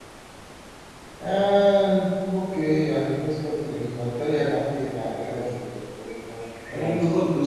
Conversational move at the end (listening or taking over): taking over